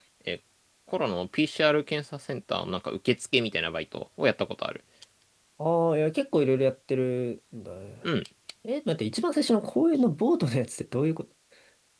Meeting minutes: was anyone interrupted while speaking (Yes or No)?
No